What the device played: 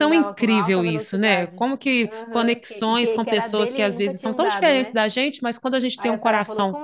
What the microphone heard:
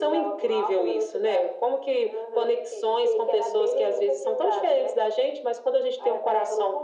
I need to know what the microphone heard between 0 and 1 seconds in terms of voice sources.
echo only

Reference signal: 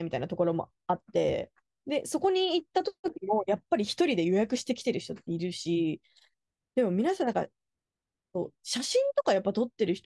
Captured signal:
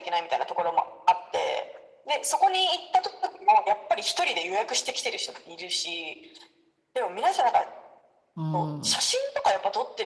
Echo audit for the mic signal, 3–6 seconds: echo only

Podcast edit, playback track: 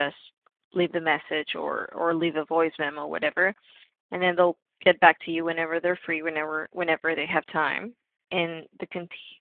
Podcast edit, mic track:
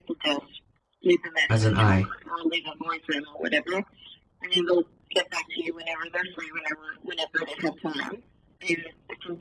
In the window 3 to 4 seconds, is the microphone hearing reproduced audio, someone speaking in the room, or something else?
echo only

